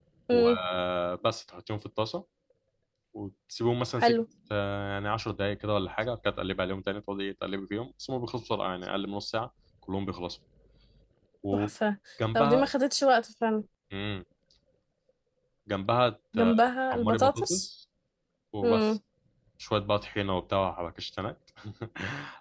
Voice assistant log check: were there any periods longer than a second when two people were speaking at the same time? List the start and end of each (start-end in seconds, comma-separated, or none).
16.4-17.7